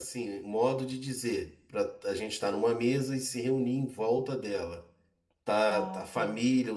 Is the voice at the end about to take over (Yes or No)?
No